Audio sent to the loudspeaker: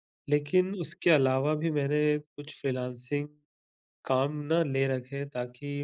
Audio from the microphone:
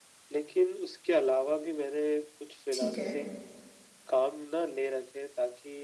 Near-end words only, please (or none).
ठीक है।